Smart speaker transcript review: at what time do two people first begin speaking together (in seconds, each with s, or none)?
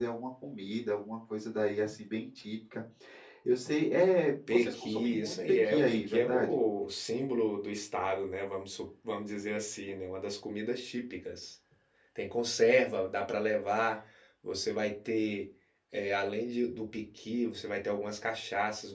4.5 s